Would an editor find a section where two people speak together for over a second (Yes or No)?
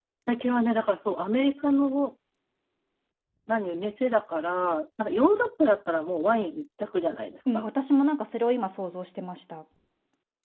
No